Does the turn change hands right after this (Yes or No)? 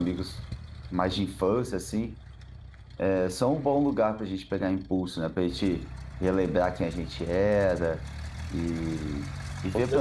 No